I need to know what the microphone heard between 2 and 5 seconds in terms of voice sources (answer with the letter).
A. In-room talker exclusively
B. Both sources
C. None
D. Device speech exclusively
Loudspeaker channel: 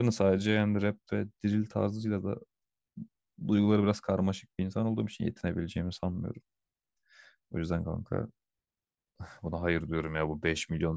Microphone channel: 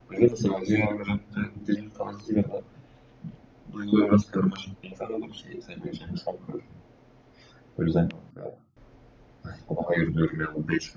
D